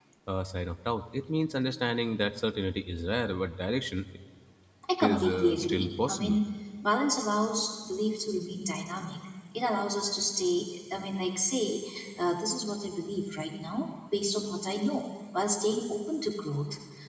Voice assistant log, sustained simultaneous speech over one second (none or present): present